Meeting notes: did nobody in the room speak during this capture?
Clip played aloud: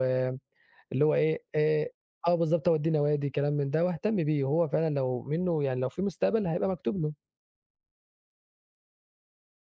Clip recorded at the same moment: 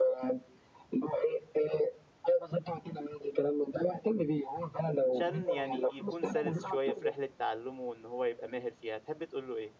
No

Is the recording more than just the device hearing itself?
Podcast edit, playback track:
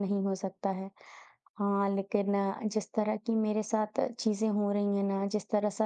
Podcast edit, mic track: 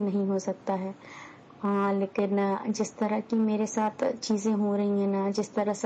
No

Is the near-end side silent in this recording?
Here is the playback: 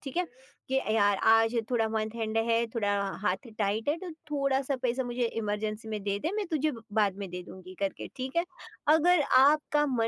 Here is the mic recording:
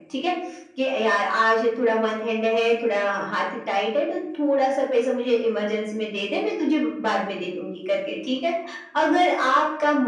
Yes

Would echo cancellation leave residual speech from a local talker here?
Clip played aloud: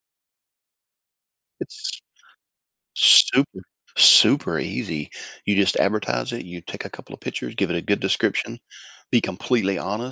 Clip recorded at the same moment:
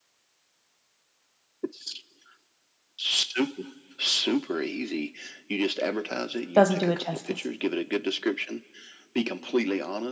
Yes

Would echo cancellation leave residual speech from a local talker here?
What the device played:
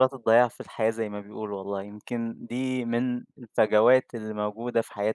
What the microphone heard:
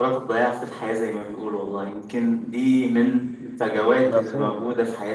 Yes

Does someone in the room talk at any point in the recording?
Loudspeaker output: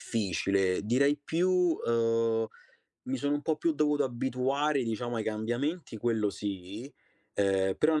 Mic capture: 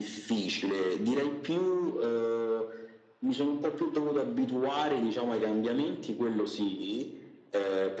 No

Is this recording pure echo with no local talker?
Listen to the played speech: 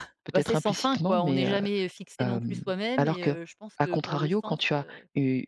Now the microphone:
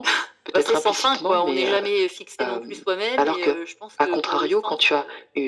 Yes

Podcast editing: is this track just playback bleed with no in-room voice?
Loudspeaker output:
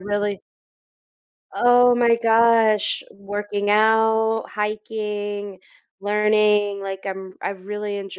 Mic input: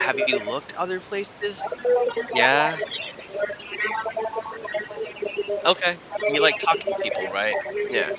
No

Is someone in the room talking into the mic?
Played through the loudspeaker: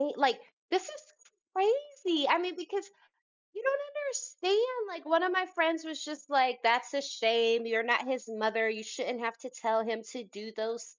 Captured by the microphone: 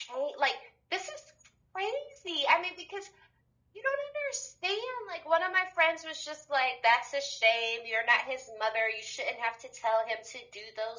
No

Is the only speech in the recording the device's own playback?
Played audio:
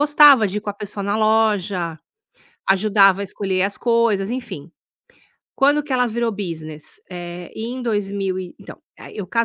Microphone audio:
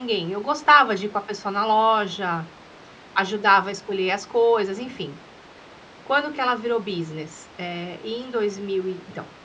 Yes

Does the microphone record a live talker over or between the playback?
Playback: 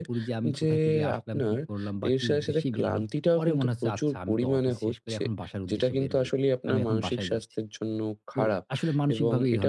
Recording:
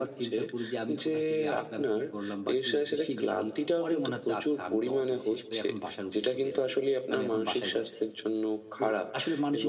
No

